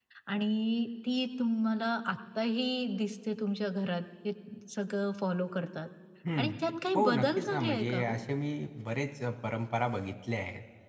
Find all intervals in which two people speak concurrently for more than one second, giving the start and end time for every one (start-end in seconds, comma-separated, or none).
7.0-8.2